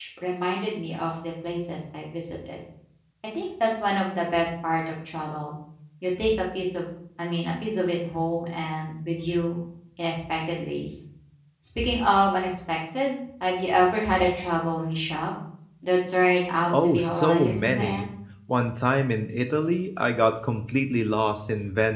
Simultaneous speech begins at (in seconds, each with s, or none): 16.7 s